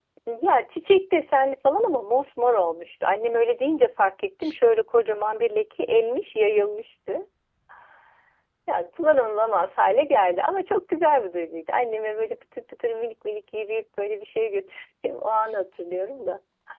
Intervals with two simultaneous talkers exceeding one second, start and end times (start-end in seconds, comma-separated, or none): none